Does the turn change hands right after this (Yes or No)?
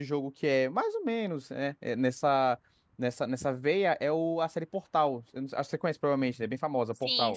Yes